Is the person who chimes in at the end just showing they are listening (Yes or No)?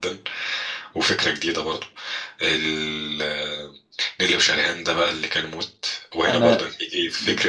Yes